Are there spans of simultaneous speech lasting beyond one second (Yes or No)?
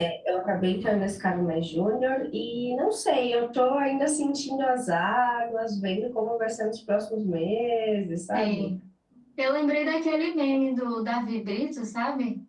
No